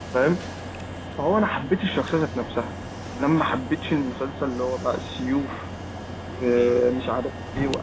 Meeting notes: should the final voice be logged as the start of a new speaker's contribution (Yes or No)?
No